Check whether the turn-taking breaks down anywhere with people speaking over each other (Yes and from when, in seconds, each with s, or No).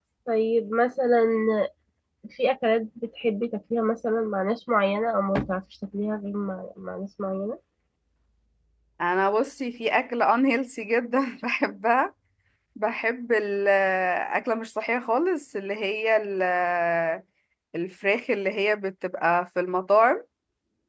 No